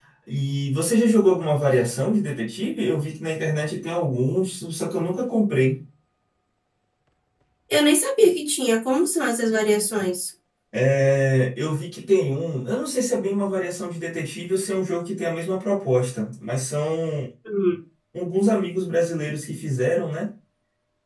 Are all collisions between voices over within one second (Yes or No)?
Yes